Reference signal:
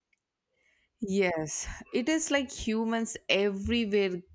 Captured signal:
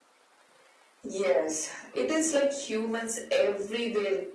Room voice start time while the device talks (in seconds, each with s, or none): none